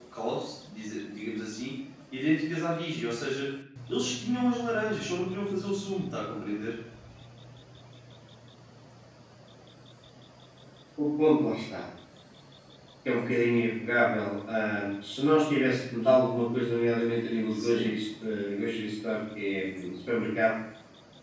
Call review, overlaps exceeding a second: none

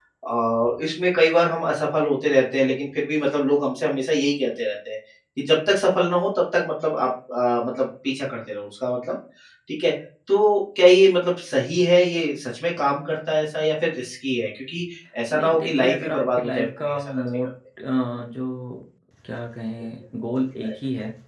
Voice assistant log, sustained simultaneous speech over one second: present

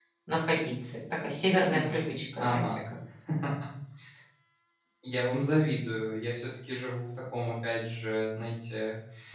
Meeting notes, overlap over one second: none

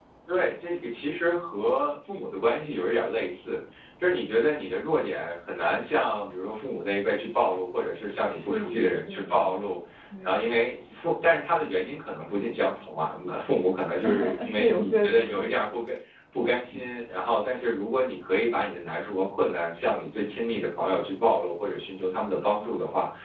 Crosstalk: present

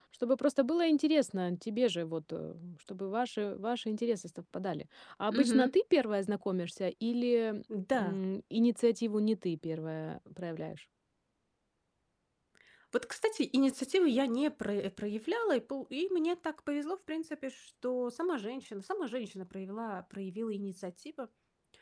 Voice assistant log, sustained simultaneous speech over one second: none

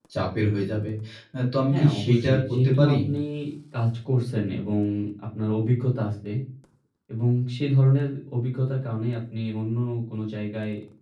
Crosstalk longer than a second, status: present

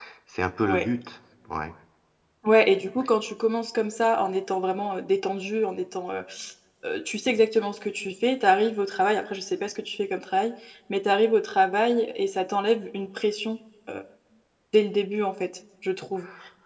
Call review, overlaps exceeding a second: none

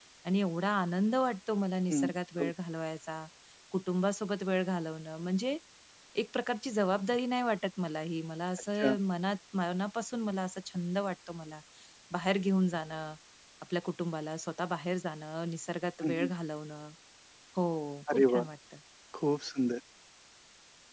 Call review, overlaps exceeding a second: none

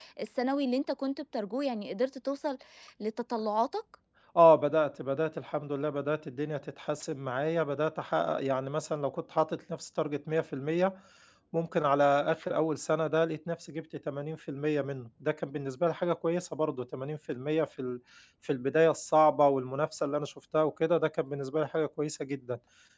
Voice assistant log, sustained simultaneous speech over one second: none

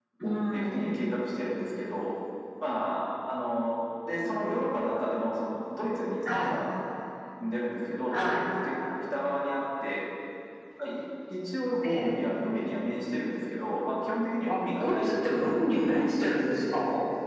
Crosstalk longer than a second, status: present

